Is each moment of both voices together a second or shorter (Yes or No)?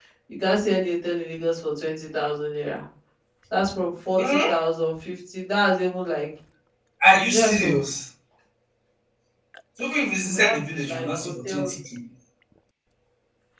No